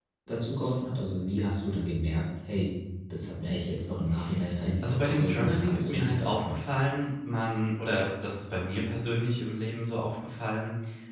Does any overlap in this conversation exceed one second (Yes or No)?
Yes